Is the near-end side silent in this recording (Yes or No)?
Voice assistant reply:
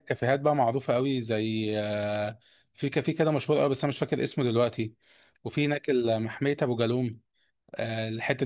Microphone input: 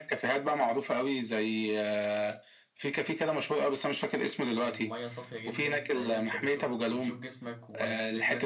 No